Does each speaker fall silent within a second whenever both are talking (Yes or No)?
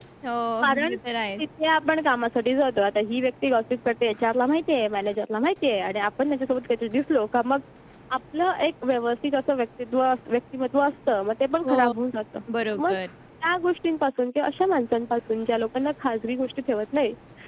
Yes